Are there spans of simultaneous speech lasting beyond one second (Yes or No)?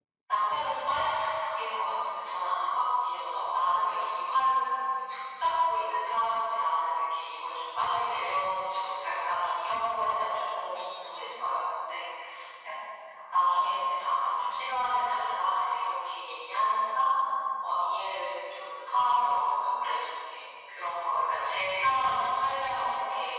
No